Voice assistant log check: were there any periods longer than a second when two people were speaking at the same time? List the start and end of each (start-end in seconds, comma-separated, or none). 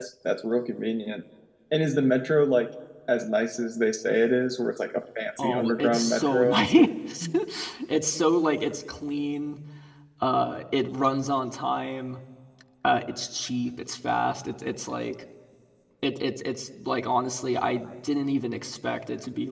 5.4-6.7